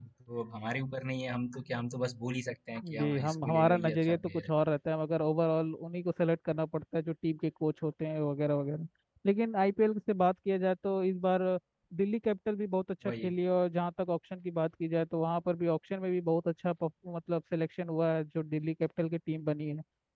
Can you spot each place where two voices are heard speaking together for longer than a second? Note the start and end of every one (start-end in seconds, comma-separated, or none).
2.8-4.5